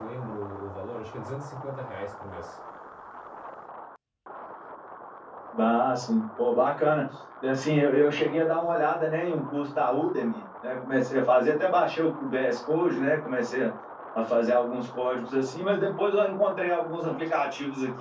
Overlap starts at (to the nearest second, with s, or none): none